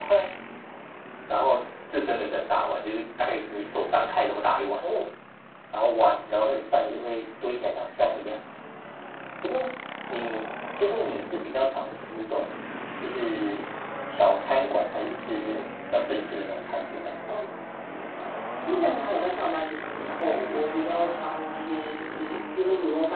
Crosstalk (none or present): none